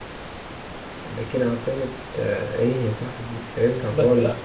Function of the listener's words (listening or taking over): taking over